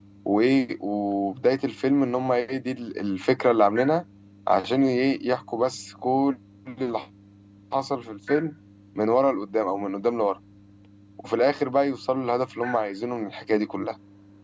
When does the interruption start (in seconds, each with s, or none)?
none